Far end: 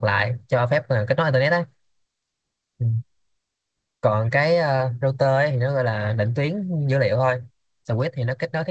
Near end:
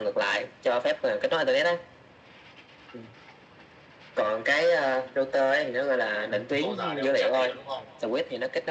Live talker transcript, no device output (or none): ông, ông câu giờ để ông tra tài liệu đúng không